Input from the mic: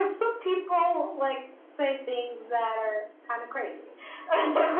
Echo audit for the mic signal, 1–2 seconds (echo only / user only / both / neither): echo only